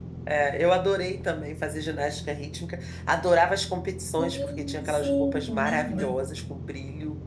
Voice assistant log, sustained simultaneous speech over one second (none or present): present